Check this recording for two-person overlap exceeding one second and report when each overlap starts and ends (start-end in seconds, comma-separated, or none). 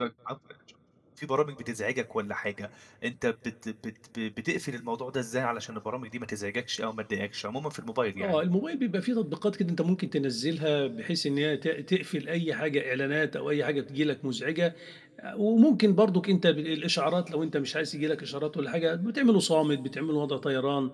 none